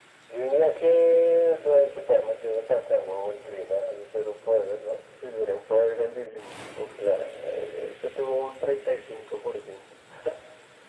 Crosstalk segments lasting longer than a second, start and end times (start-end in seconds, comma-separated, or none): none